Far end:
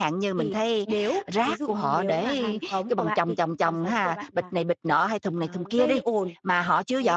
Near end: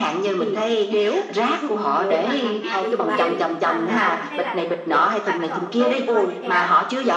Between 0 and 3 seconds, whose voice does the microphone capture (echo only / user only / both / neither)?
both